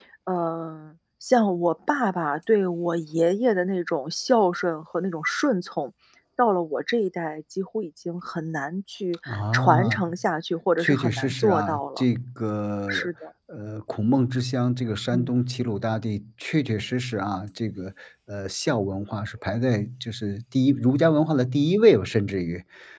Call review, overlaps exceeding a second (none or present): present